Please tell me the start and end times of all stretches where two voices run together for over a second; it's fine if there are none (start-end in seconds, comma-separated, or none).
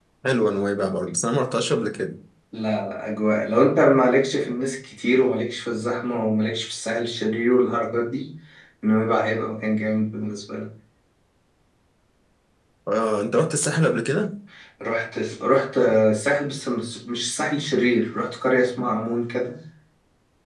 none